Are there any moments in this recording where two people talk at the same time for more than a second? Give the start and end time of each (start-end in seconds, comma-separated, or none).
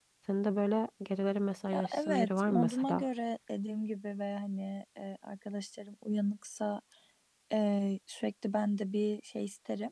1.7-3.0